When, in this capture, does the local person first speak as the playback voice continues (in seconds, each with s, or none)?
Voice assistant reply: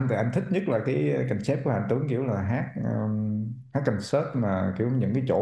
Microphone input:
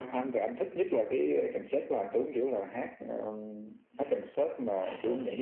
3.9 s